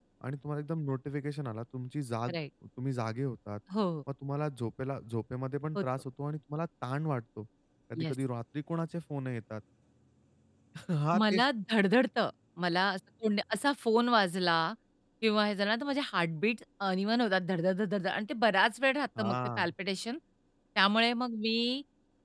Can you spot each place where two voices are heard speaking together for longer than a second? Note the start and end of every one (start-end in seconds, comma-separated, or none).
none